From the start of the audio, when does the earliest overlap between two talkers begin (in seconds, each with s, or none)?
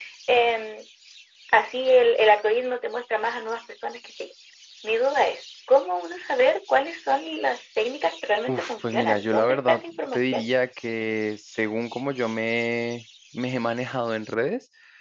8.5 s